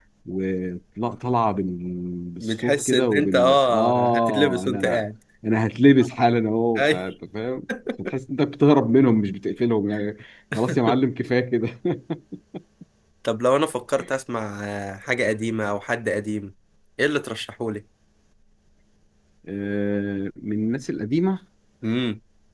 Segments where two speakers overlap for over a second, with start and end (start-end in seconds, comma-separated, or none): 2.4-5.0